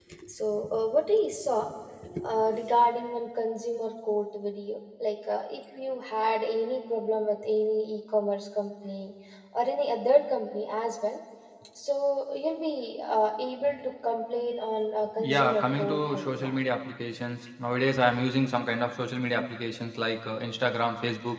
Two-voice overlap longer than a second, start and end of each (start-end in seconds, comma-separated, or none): 15.2-16.6